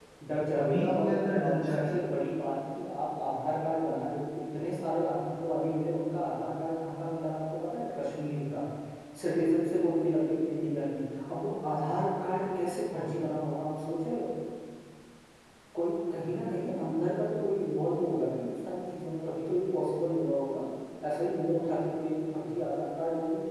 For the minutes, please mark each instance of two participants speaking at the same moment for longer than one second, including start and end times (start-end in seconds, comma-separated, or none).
0.6-2.1